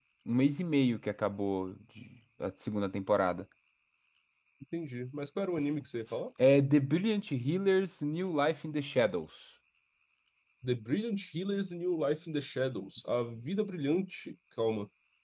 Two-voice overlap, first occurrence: none

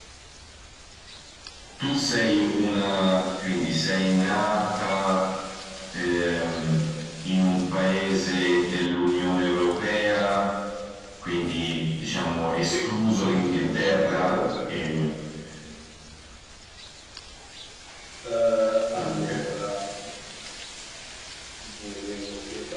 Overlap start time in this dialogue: 12.6 s

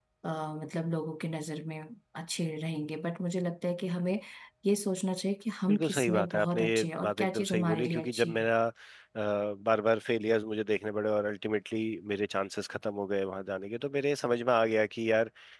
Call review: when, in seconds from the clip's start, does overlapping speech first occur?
5.7 s

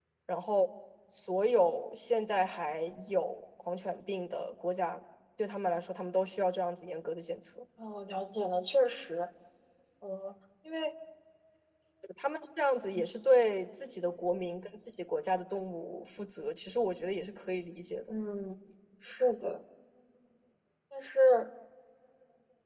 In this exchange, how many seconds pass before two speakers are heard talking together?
none

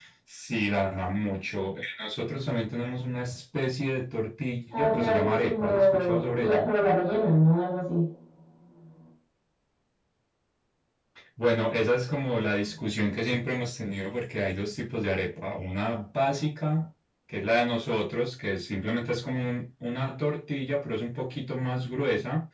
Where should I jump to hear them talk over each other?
4.7 s

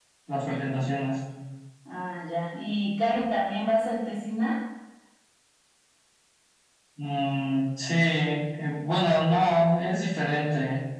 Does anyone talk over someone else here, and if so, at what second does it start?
none

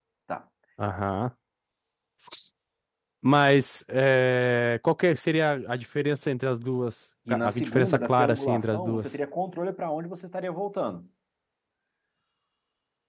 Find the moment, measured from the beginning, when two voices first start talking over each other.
7.3 s

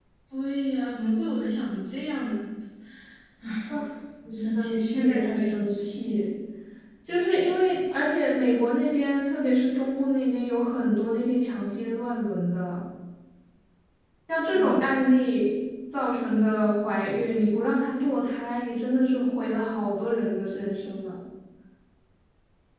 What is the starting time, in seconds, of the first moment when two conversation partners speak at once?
4.3 s

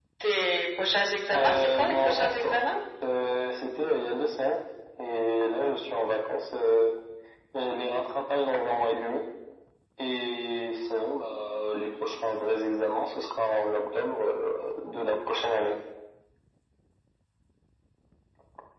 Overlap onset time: 1.3 s

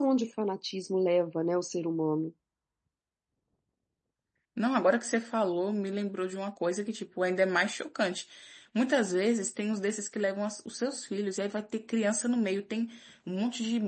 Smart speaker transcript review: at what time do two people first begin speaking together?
none

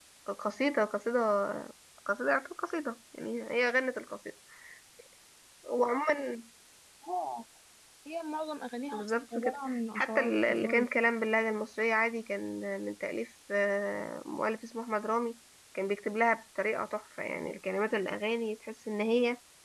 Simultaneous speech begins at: 8.9 s

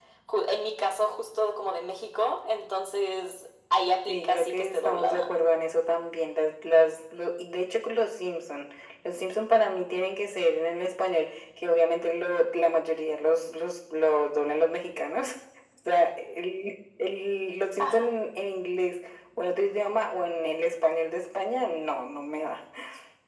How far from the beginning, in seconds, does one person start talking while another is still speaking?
4.1 s

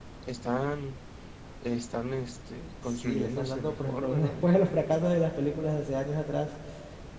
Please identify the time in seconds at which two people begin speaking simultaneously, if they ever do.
2.8 s

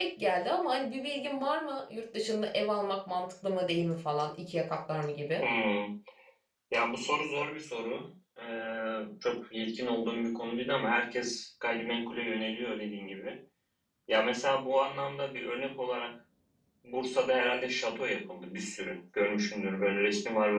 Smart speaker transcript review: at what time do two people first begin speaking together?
none

